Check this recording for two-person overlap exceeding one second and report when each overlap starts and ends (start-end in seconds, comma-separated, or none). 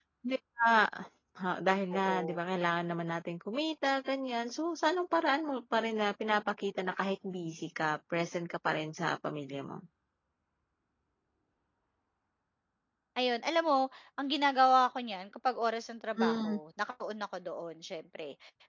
none